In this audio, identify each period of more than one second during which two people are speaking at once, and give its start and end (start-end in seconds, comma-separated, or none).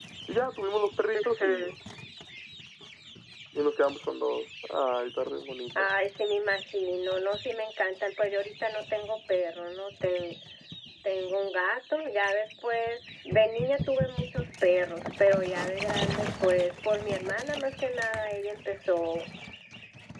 none